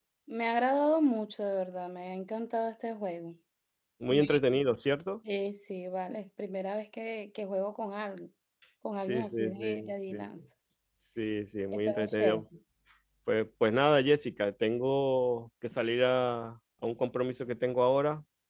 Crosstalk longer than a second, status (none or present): present